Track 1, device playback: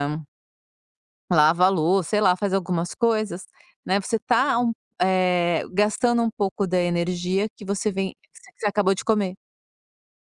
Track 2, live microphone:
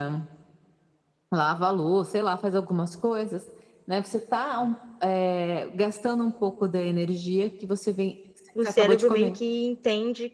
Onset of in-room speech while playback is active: 9 s

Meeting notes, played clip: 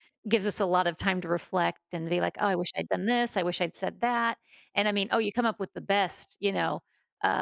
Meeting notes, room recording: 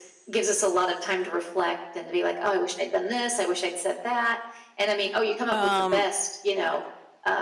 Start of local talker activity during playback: 6 s

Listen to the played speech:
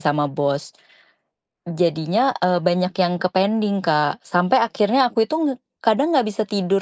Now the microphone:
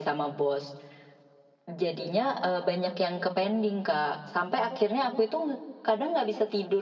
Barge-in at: none

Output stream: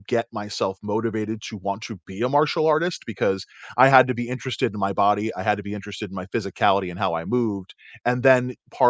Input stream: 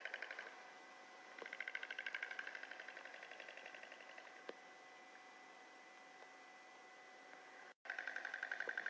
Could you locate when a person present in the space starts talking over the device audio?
none

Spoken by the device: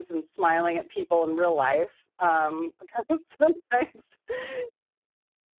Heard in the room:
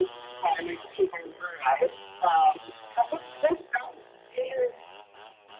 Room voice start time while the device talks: none

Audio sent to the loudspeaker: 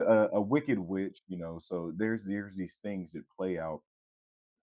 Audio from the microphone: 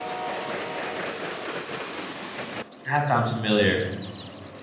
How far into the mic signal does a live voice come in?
3 s

